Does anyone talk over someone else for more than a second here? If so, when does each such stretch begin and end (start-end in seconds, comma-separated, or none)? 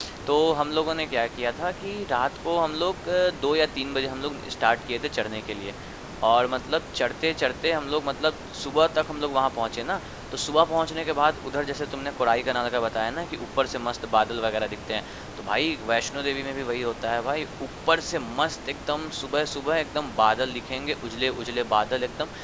none